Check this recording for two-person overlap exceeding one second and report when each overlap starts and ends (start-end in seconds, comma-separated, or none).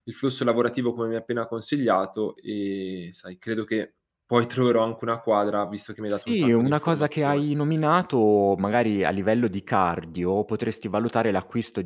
6.1-7.4